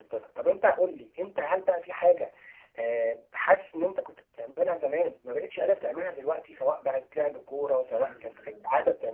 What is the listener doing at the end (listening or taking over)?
taking over